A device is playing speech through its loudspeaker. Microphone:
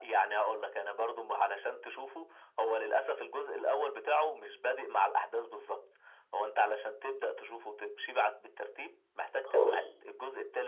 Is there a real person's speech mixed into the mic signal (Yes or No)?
Yes